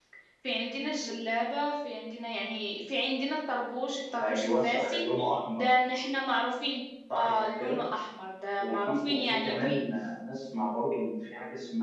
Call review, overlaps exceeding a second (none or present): present